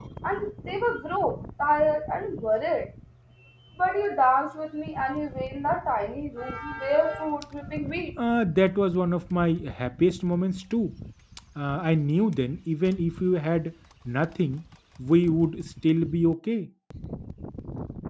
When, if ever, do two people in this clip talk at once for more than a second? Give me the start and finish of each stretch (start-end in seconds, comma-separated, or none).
none